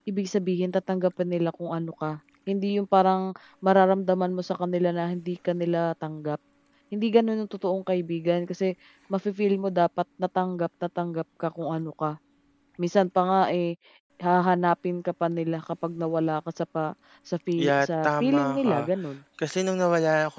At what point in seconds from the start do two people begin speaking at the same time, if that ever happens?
17.5 s

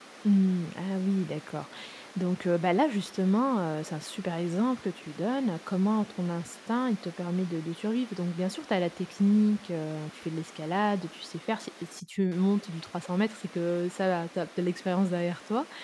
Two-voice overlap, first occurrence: none

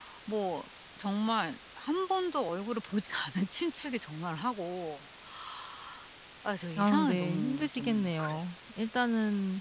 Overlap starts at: 6.8 s

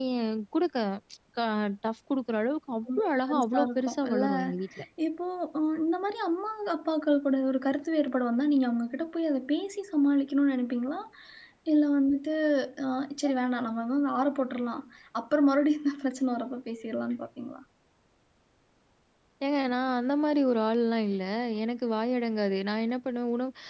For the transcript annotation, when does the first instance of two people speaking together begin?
2.9 s

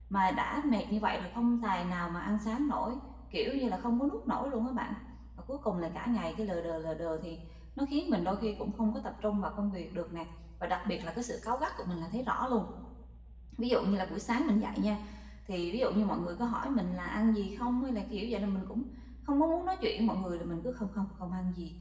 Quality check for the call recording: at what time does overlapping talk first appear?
none

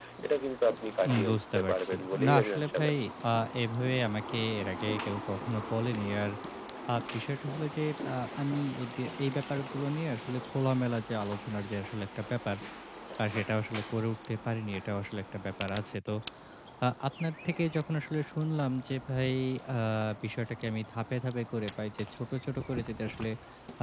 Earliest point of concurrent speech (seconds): 1.1 s

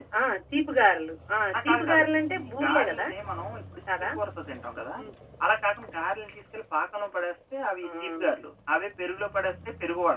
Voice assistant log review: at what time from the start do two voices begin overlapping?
1.6 s

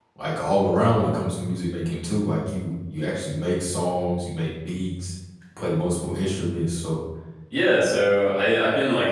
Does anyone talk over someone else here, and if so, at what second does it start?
none

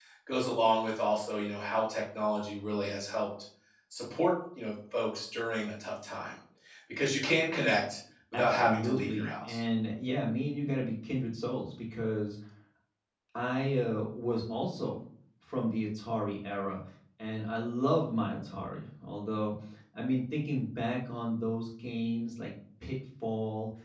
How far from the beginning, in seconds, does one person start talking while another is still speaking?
8.3 s

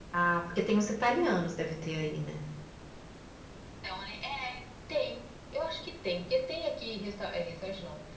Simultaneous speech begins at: none

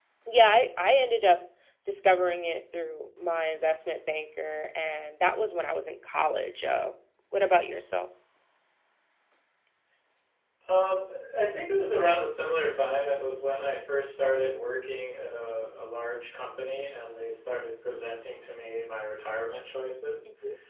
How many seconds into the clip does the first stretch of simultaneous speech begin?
none

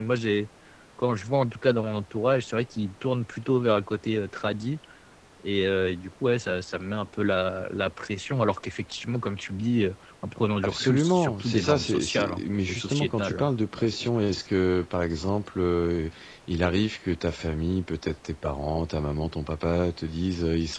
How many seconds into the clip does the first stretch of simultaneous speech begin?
10.6 s

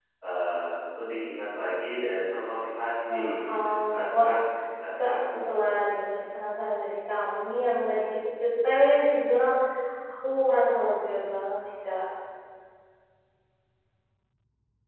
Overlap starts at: 3.1 s

